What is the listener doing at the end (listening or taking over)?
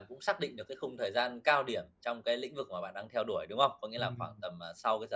listening